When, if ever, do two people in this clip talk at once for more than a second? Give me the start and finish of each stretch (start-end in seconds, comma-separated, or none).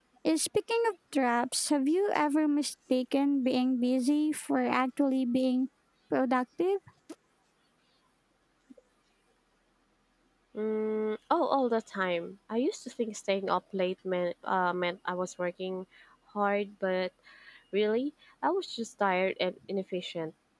none